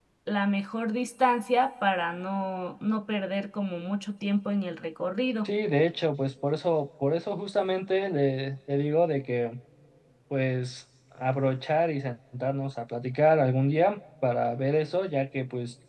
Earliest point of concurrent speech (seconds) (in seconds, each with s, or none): none